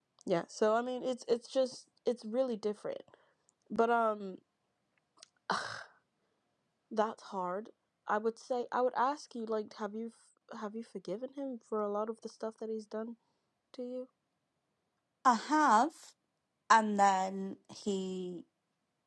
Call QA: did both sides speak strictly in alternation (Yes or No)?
Yes